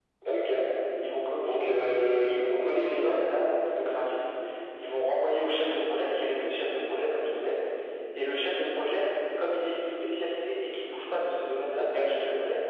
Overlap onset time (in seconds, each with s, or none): 1.4 s